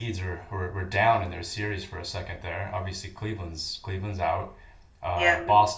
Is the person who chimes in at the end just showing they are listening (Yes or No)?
Yes